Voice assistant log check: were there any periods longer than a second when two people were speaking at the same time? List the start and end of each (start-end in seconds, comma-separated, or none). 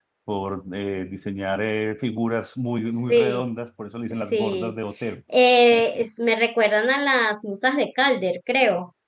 none